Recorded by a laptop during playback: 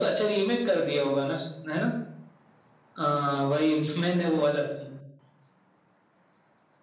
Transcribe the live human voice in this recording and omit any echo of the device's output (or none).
none